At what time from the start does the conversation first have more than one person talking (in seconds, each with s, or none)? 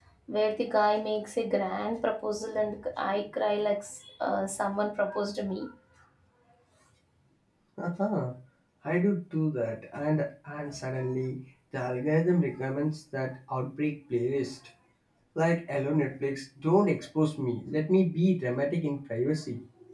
none